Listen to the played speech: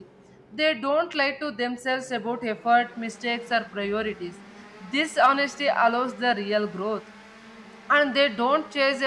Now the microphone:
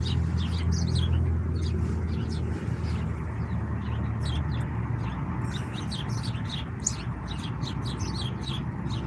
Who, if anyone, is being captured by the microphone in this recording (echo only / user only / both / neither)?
neither